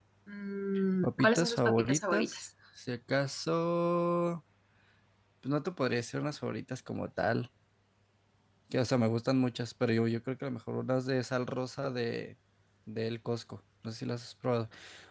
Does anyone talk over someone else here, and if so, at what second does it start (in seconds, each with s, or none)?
1.0 s